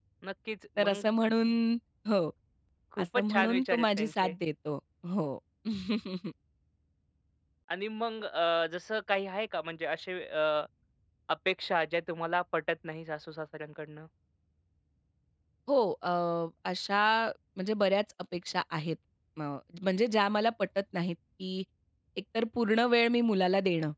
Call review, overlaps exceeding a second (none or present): present